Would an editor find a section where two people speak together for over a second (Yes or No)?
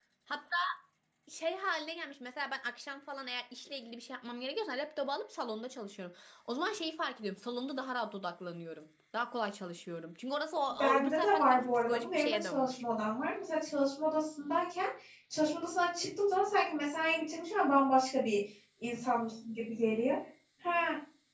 Yes